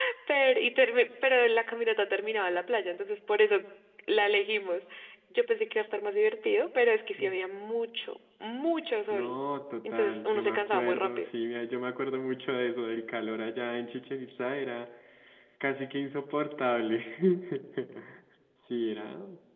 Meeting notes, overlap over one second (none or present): present